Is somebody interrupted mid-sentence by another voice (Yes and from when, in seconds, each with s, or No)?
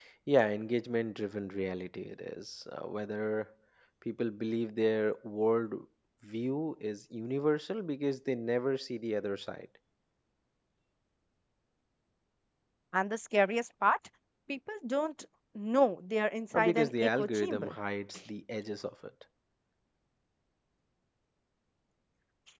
Yes, from 16.5 s